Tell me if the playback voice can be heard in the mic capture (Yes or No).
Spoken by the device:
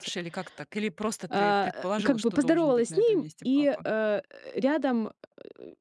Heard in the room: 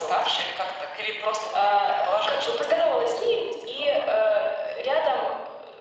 Yes